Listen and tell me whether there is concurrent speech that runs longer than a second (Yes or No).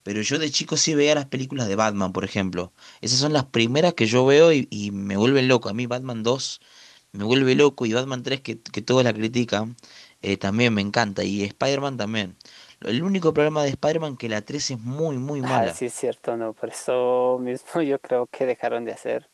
No